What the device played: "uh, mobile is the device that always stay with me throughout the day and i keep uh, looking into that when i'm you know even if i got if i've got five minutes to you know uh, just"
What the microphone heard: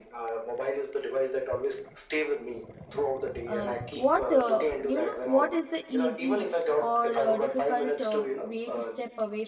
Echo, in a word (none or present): present